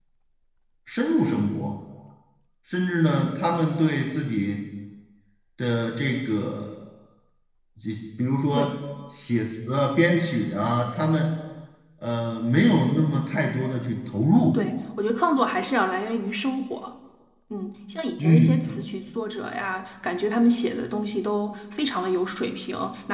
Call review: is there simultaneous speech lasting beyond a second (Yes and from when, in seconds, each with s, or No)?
No